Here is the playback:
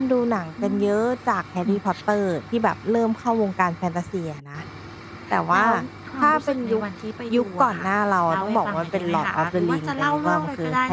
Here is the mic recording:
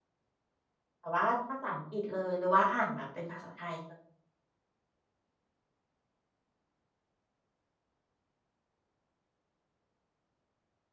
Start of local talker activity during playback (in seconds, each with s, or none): 1.0 s